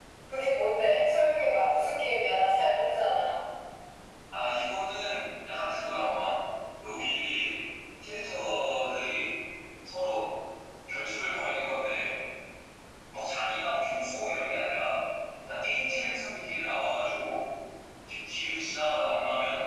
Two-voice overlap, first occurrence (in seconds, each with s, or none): none